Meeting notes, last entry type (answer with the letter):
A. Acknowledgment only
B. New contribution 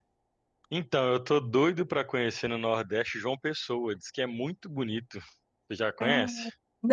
B